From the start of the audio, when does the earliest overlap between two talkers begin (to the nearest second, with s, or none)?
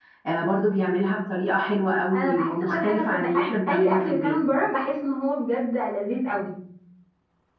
2 s